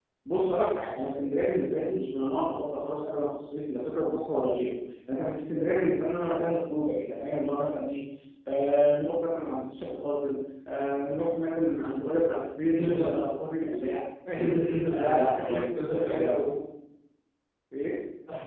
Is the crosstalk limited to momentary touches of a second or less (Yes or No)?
No